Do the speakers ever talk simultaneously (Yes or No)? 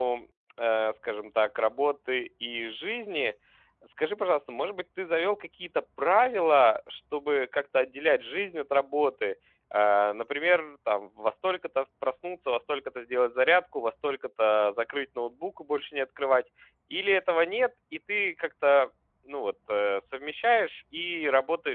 No